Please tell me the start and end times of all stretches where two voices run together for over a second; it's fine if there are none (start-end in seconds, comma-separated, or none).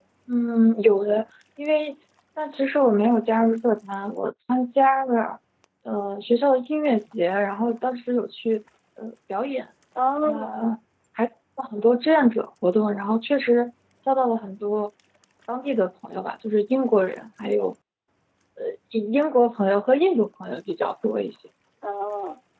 none